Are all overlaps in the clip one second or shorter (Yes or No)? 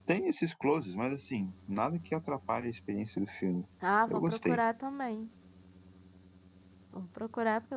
Yes